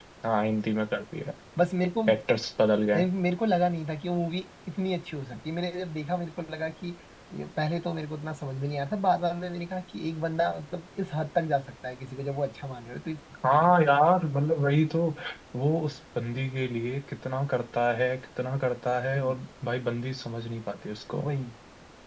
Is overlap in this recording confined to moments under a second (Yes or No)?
Yes